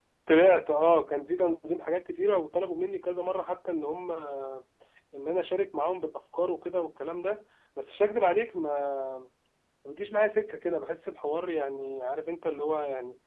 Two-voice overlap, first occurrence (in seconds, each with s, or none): none